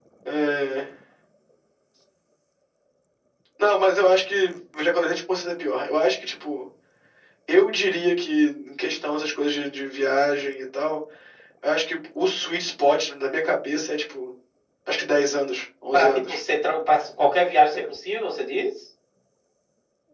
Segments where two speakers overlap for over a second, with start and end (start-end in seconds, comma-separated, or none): none